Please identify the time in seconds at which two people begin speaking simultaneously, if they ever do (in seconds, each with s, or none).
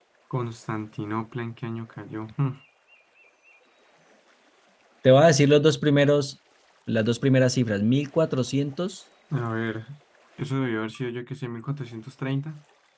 none